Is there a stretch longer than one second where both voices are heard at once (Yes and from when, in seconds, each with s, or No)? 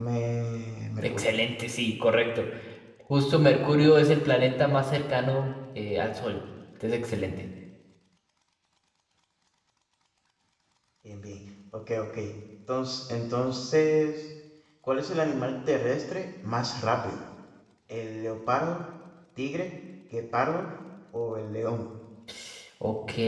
No